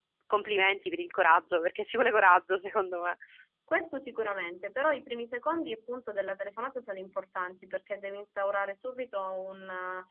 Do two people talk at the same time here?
No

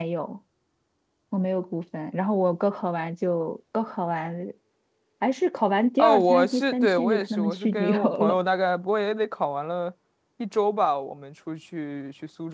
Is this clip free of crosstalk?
No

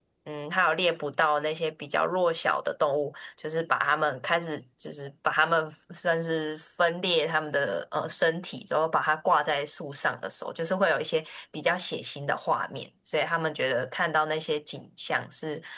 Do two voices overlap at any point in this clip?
No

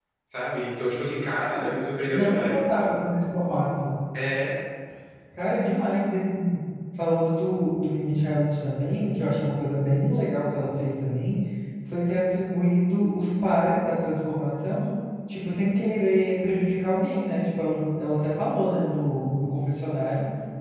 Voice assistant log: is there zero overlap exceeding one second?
Yes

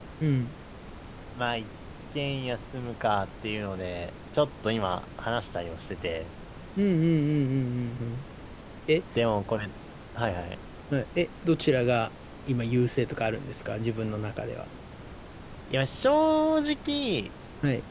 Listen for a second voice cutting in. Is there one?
No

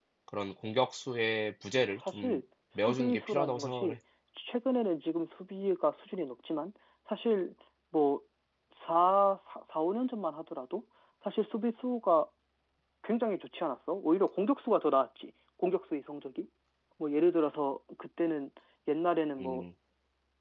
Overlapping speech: Yes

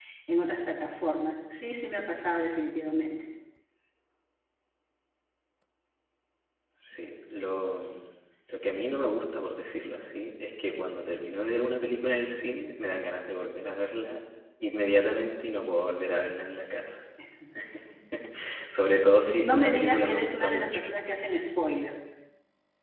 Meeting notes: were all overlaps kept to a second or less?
No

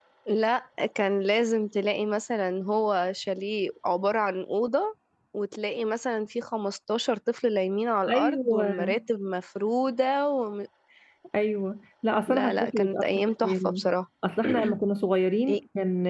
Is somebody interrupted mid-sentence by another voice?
Yes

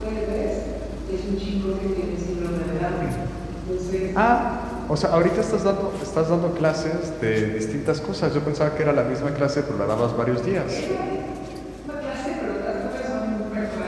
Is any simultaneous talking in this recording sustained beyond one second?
No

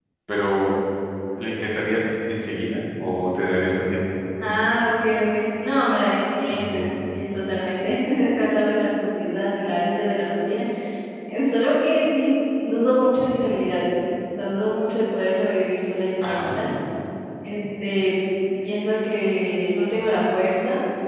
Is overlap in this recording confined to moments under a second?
Yes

